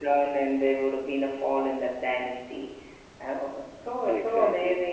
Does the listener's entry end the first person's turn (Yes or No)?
No